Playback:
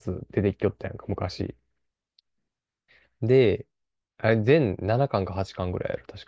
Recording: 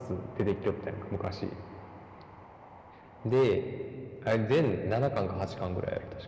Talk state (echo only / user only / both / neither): echo only